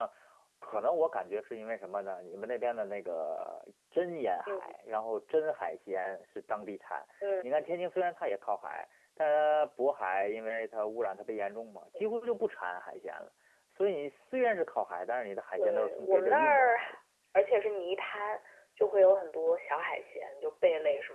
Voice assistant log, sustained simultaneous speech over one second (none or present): present